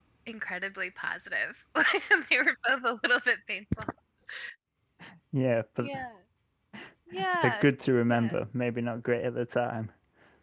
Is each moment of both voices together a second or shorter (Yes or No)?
Yes